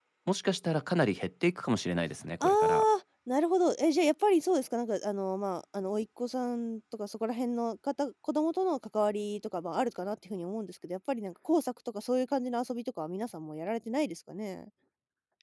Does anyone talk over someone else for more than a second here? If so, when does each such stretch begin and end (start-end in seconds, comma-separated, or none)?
none